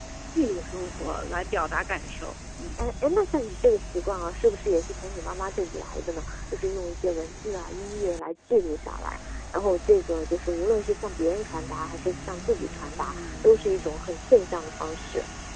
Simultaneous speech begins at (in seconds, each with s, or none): none